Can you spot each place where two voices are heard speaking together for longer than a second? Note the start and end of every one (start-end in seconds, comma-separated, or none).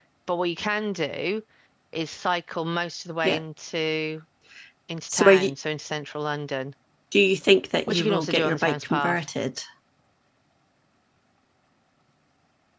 7.9-9.2